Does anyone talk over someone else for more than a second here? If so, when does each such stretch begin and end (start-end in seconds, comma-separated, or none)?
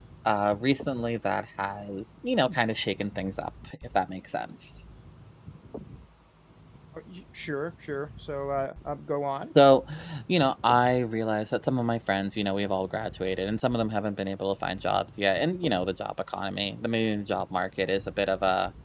none